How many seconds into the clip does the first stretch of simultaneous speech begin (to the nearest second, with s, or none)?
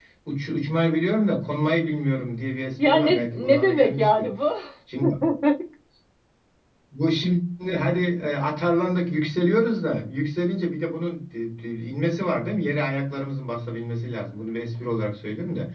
3 s